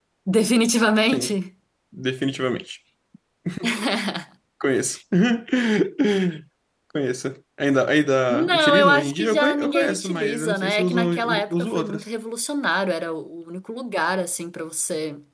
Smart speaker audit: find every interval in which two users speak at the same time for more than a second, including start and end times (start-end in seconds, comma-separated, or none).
8.3-12.0